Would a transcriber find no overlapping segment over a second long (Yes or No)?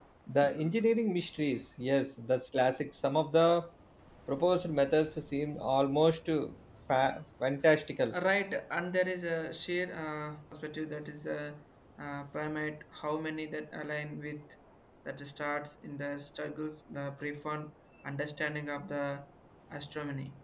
Yes